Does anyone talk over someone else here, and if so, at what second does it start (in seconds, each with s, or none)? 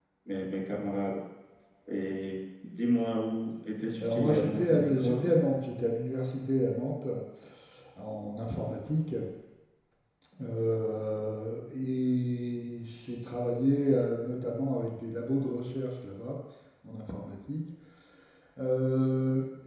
4.0 s